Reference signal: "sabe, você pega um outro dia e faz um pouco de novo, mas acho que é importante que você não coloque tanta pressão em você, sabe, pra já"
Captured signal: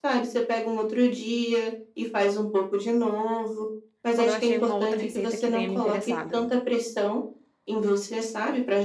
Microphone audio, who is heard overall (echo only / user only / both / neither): both